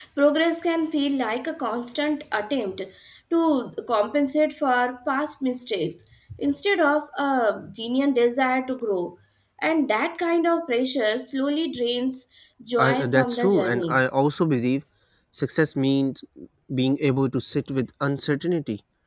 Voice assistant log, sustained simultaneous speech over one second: present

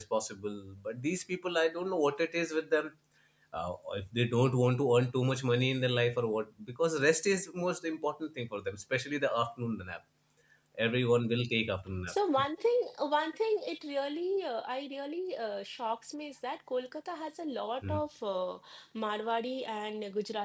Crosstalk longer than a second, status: none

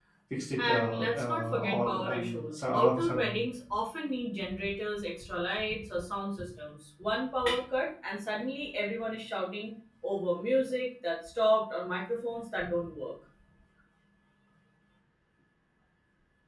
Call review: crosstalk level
present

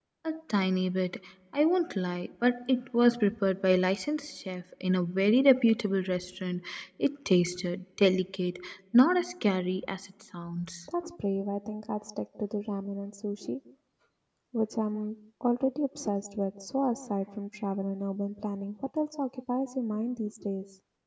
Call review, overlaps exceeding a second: none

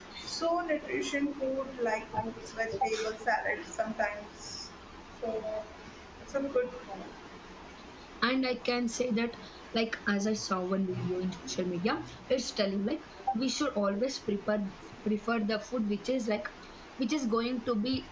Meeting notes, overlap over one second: none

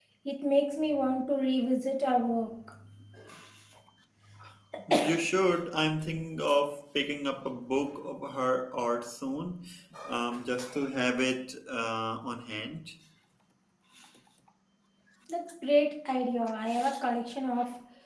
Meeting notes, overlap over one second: none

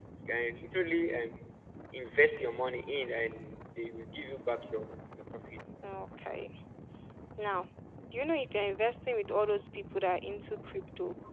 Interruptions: none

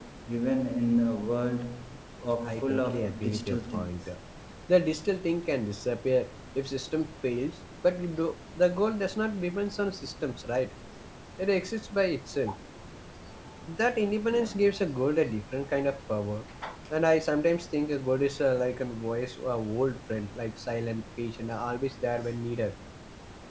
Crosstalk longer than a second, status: present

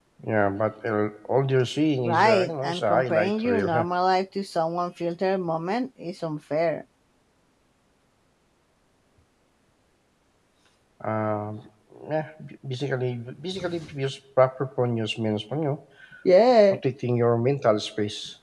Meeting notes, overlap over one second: present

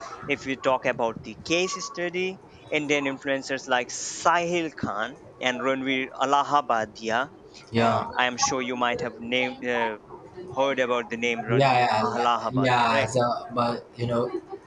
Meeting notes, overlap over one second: present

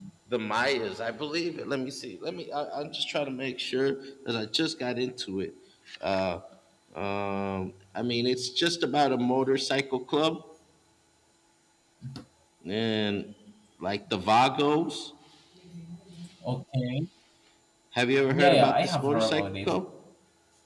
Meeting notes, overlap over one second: present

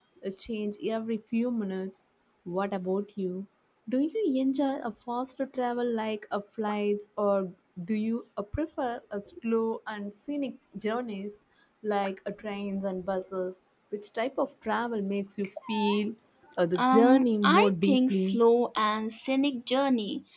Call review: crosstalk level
present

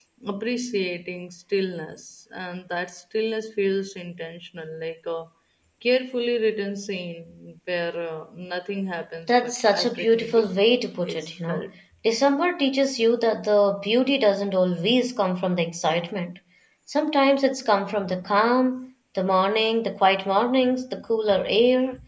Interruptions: present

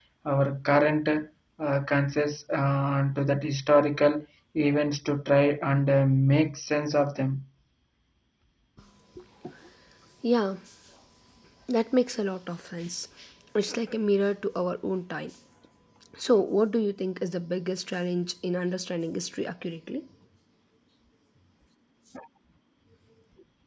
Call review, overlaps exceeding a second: none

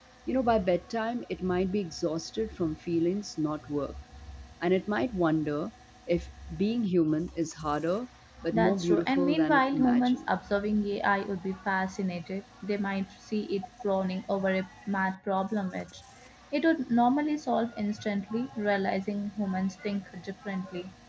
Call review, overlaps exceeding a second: present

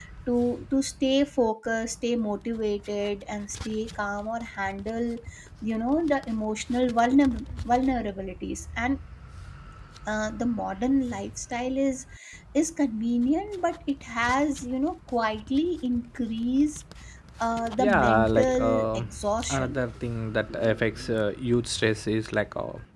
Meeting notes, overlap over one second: present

